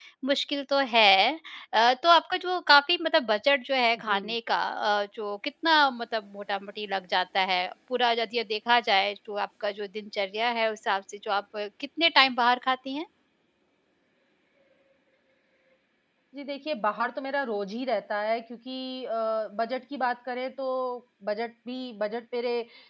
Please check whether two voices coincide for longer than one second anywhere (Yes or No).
No